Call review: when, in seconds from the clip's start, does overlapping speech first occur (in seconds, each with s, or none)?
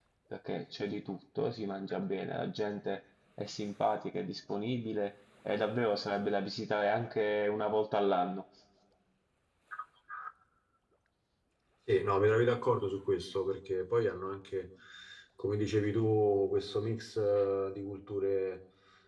none